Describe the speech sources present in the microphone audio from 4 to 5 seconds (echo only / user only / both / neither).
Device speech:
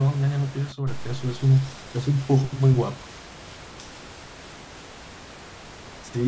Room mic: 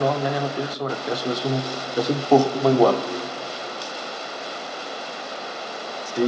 neither